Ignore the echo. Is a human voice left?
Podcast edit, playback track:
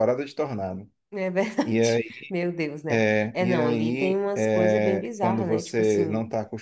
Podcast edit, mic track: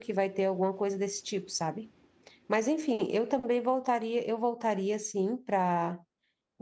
Yes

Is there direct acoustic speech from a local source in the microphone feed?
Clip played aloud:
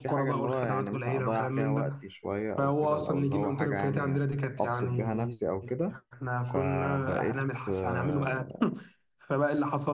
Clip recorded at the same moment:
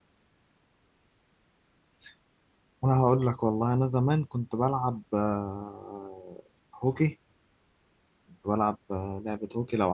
Yes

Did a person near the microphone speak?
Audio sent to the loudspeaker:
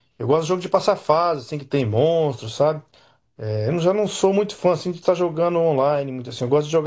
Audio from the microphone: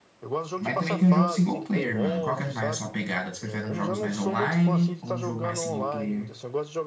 Yes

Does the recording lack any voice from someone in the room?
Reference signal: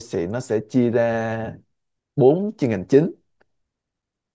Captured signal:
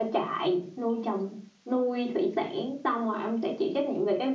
No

